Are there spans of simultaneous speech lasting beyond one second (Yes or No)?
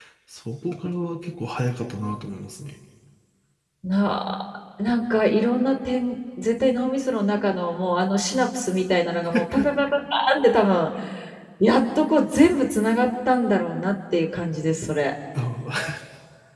No